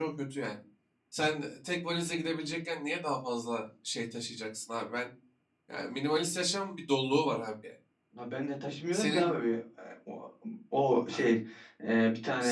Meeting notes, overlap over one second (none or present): none